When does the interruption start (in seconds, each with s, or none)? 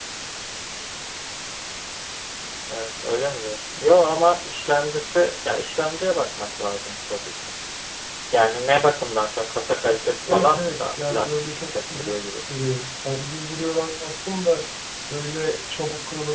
10.2 s